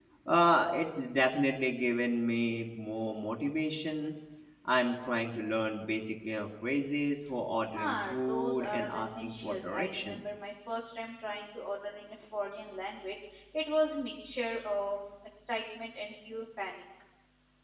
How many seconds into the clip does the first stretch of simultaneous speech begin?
7.6 s

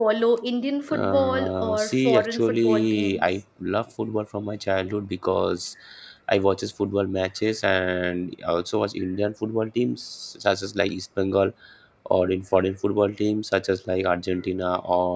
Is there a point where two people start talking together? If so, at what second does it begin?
0.9 s

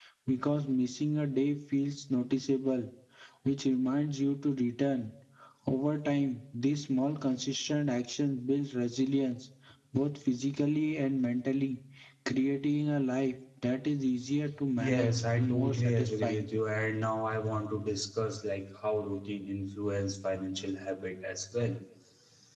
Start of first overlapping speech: 14.8 s

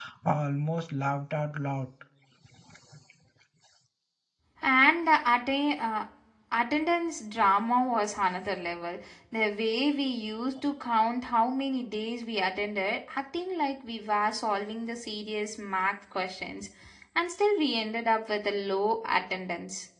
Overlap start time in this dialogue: none

